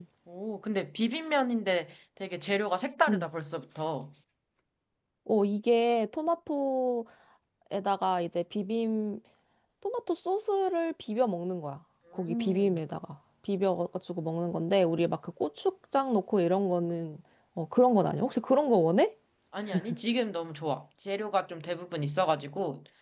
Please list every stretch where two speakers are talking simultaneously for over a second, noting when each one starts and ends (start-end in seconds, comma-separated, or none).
none